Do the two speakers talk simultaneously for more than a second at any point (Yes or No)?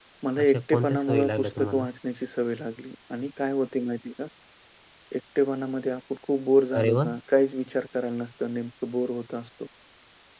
Yes